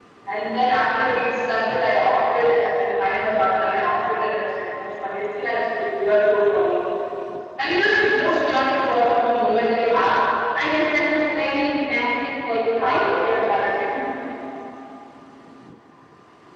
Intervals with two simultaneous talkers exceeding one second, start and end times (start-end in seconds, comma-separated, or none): none